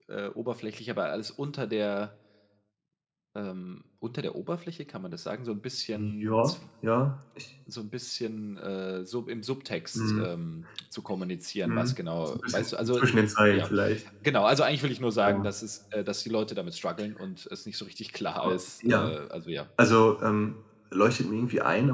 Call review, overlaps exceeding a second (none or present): present